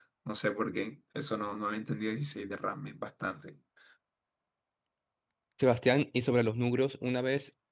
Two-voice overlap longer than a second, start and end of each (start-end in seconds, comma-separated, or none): none